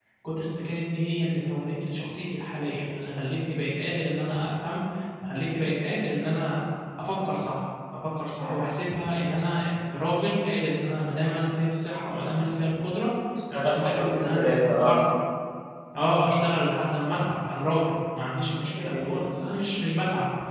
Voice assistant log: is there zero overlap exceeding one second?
No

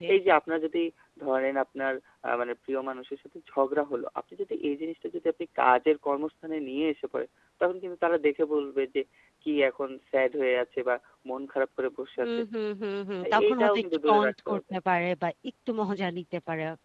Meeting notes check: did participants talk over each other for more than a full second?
Yes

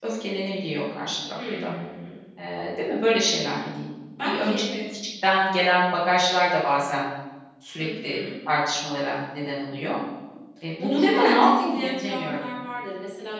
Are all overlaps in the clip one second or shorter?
No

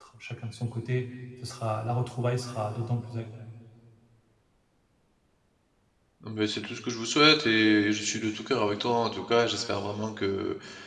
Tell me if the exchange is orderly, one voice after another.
Yes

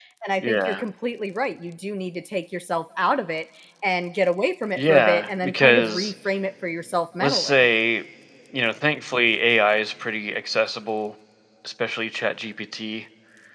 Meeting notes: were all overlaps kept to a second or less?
No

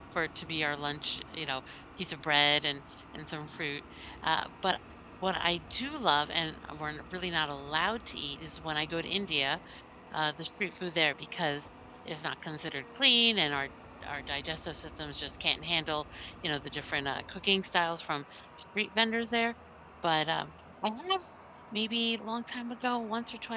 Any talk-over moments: No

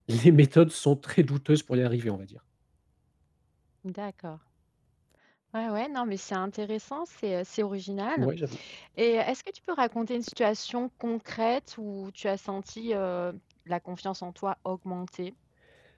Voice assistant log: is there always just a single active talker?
Yes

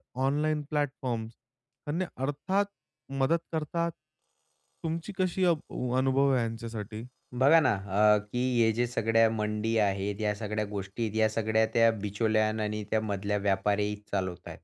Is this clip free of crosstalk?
Yes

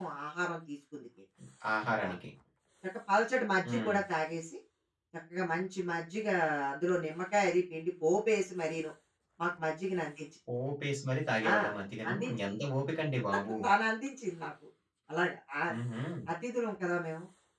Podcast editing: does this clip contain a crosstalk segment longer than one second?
No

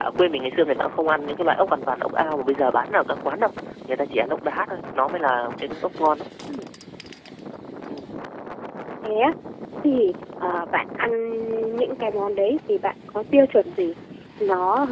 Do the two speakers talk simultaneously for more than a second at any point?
No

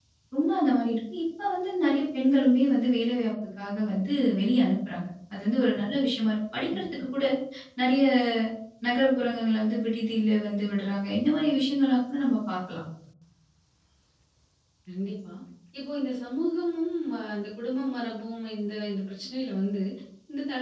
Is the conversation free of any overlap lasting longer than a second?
Yes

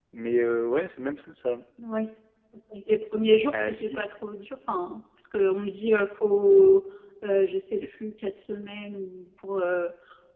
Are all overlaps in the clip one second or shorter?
Yes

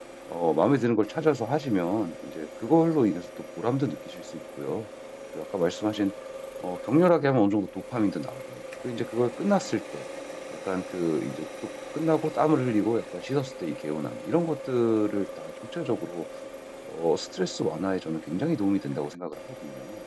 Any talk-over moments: No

